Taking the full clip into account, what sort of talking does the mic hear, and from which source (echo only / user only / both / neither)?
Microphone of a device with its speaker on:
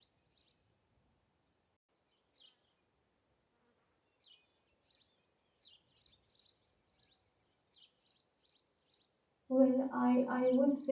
user only